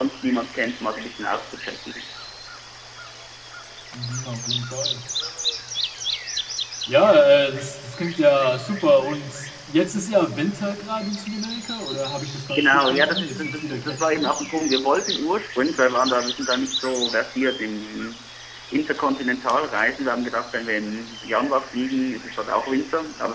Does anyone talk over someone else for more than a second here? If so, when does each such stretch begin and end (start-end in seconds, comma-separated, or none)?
12.6-14.1